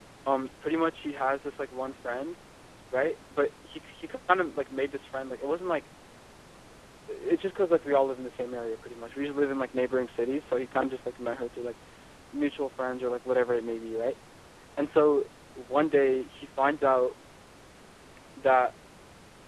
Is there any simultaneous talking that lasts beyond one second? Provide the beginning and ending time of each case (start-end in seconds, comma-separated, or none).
none